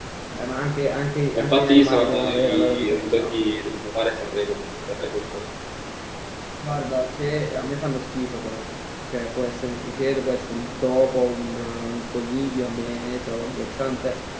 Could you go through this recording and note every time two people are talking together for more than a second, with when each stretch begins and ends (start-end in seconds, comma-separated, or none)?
1.4-3.4